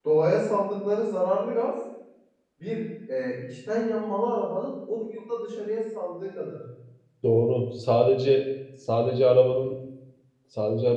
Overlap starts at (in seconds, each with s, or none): none